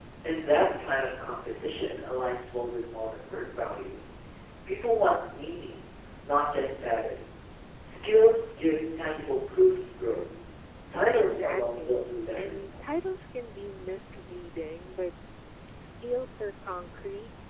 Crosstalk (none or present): present